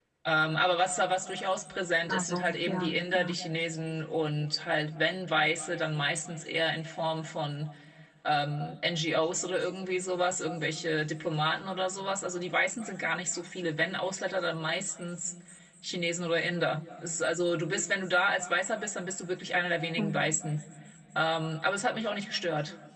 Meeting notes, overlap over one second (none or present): present